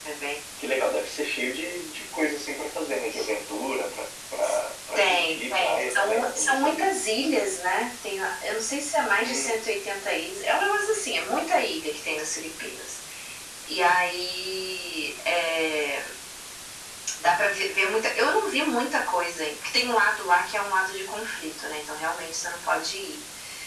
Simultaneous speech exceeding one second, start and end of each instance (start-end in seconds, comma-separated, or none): 5.0-6.9